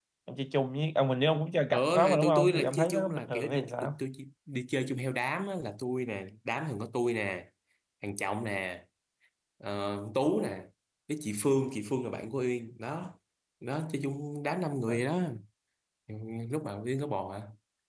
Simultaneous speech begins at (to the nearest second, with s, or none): 2 s